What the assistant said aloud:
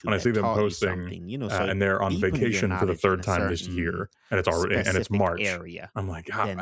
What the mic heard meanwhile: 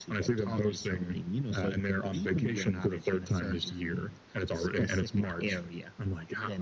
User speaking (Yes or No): No